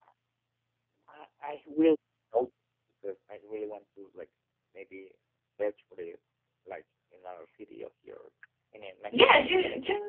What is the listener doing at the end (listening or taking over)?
taking over